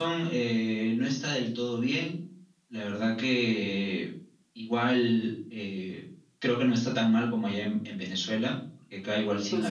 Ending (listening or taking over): listening